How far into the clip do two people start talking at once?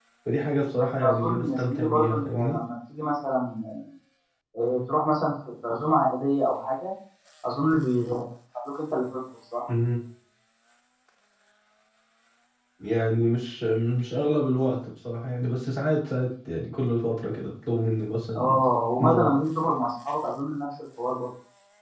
1.0 s

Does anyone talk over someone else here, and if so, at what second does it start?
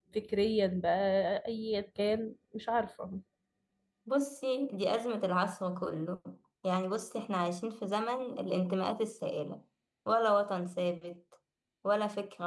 none

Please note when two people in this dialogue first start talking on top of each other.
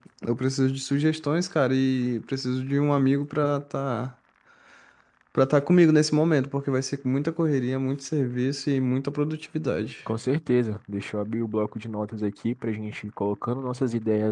none

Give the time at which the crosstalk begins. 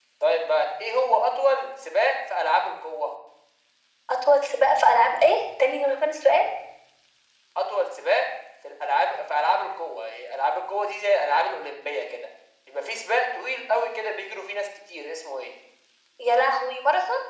none

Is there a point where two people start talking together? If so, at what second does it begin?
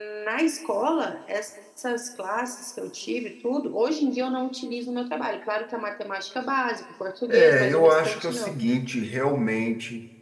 7.3 s

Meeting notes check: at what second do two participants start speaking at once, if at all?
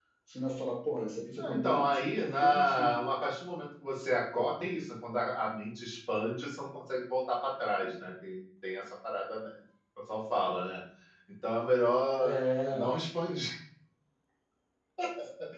1.4 s

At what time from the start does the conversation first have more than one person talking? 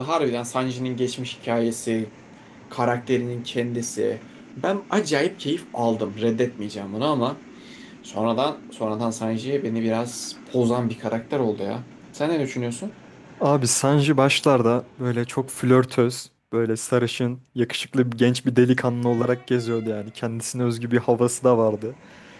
none

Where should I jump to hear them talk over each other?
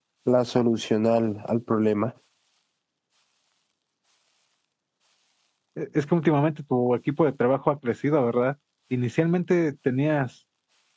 none

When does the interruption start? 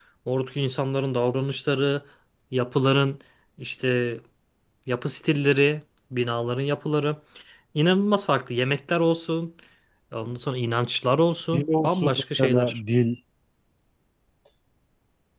11.5 s

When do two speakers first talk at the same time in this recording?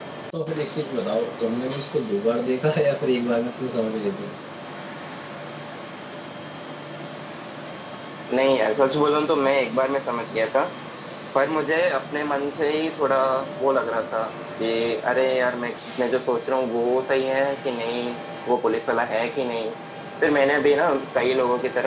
none

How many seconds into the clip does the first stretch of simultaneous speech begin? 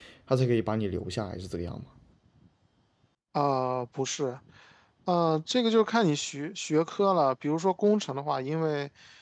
none

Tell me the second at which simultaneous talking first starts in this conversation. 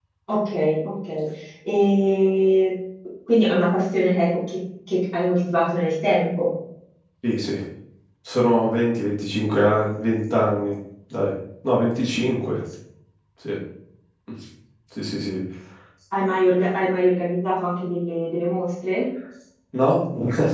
none

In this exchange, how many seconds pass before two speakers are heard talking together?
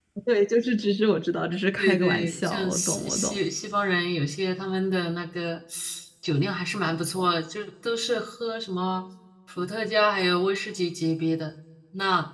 1.8 s

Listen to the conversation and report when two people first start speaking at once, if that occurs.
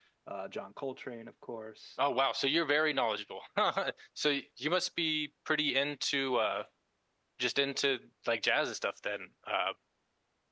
none

